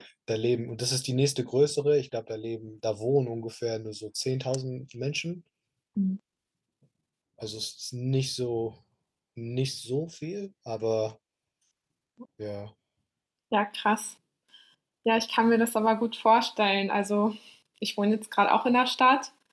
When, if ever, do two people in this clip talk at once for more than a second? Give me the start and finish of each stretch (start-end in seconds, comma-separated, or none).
none